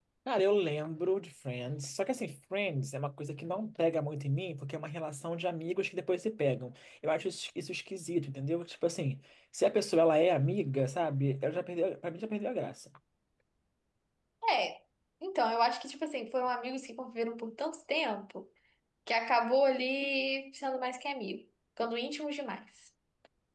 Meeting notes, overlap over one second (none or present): none